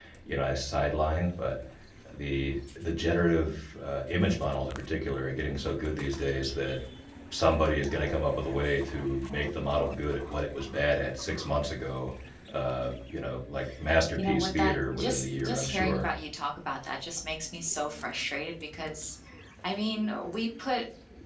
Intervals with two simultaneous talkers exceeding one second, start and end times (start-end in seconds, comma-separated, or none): 14.1-16.1